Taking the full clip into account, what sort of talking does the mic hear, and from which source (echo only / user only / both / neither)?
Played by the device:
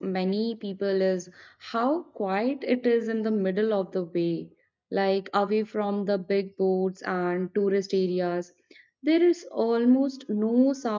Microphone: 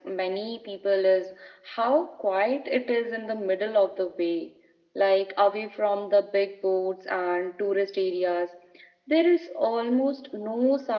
echo only